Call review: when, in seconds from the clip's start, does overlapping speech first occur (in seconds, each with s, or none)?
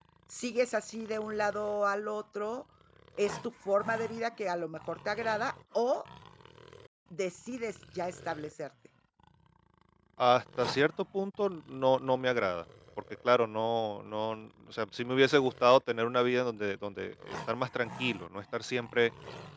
none